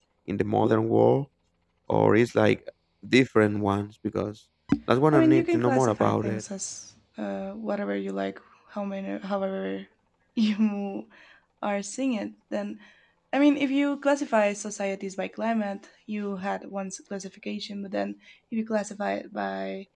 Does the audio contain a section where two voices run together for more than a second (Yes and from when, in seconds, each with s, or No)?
Yes, from 5.1 s